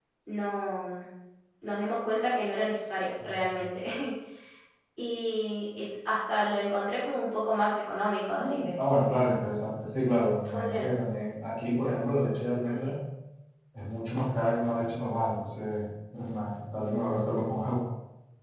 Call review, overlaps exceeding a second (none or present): none